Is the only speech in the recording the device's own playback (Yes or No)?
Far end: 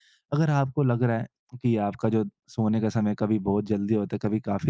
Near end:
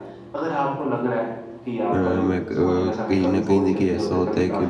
No